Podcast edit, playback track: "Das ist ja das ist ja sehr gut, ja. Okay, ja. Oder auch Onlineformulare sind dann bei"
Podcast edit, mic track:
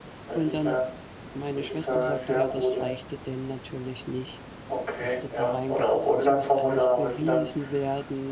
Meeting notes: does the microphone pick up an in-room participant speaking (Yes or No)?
Yes